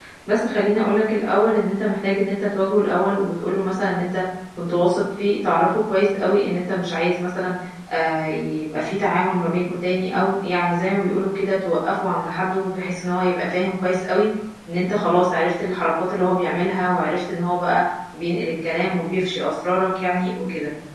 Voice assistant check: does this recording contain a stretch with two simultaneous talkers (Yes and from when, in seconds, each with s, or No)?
No